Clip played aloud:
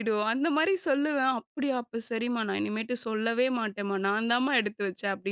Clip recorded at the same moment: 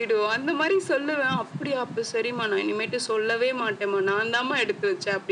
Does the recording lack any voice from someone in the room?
Yes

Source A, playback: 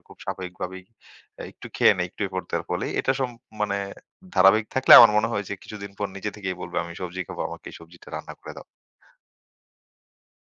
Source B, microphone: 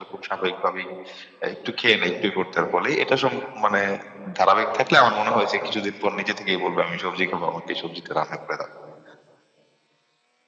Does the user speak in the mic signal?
No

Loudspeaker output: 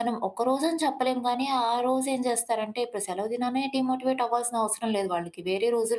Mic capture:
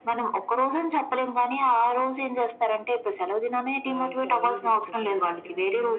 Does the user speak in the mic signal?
Yes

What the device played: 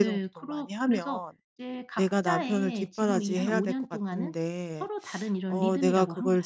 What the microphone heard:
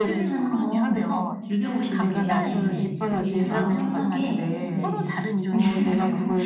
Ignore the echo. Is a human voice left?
Yes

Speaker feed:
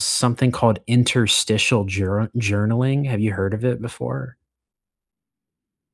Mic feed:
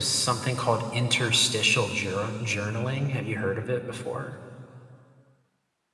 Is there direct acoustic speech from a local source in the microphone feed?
No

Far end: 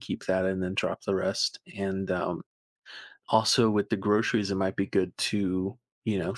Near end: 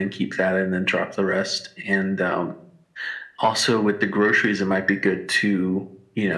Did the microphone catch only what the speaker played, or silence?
Yes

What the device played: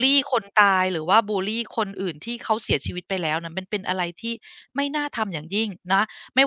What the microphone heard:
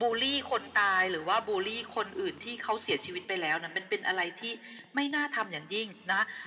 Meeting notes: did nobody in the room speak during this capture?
Yes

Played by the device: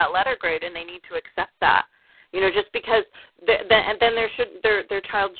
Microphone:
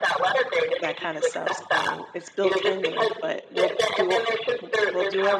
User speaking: Yes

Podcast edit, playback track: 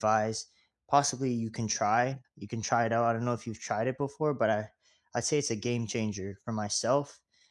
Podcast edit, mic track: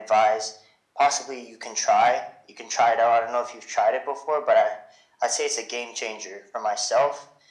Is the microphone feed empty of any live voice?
Yes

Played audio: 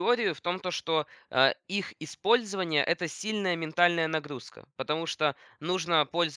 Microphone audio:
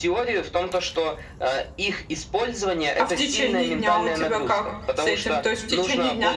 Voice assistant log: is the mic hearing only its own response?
No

